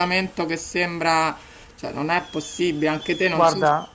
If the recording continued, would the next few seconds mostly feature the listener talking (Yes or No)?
Yes